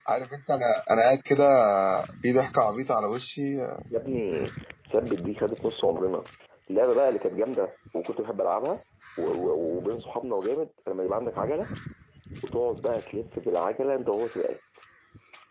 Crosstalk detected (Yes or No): No